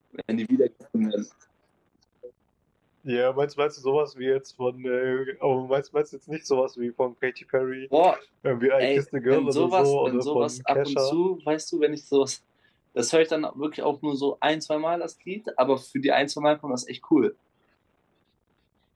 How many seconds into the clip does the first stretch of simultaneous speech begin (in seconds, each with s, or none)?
8.8 s